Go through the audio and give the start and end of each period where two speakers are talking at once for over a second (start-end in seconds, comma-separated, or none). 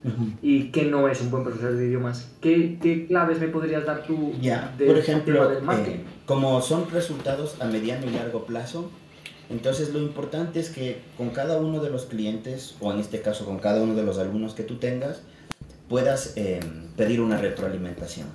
4.3-6.1